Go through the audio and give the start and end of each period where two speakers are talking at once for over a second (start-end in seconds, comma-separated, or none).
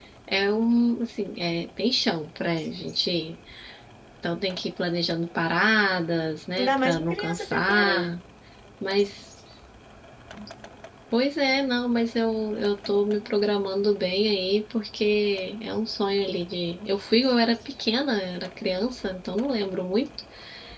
6.6-8.1